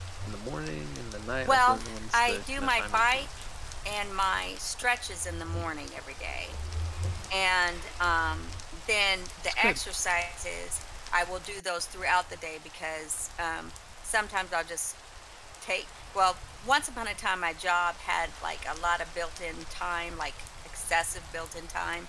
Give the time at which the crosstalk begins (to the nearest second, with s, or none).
1 s